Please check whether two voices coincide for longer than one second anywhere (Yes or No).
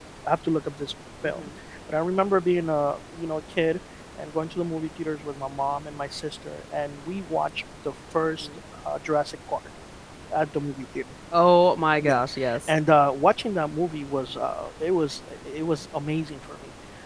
No